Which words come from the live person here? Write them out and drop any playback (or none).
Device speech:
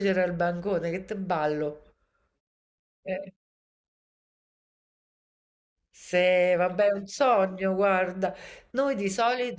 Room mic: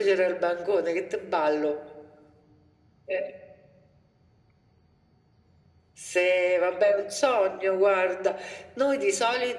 none